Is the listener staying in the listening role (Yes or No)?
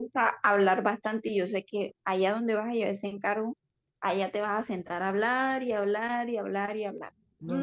No